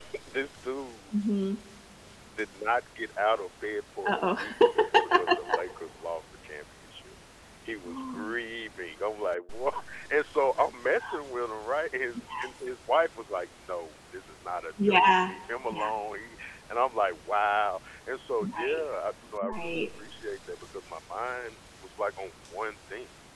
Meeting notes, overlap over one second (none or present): present